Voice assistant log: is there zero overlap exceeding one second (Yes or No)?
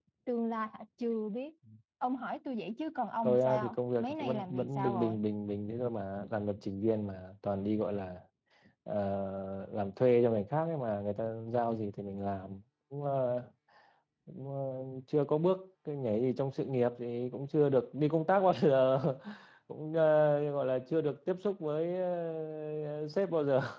No